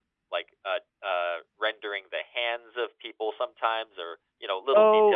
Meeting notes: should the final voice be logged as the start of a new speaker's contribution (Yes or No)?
Yes